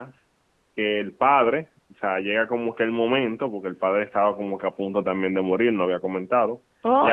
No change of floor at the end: No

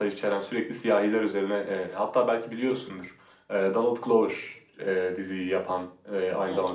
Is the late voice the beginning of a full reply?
No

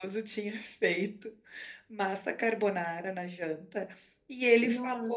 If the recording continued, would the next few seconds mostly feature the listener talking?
No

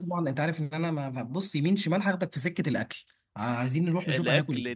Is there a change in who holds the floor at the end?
Yes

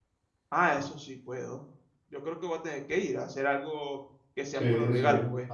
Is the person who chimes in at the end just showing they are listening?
No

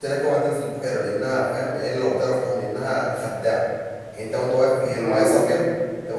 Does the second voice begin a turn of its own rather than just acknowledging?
No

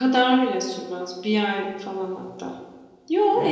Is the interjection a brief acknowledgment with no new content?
Yes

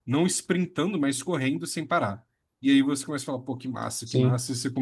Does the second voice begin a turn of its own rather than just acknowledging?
No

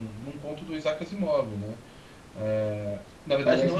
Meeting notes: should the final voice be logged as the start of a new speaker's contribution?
No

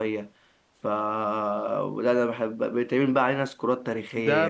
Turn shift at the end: Yes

